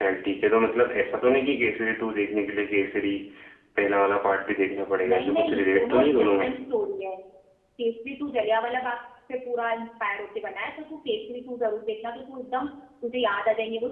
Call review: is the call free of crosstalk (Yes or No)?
No